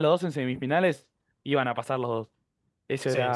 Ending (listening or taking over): taking over